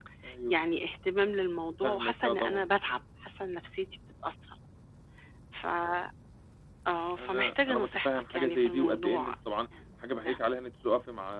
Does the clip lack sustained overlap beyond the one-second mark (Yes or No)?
No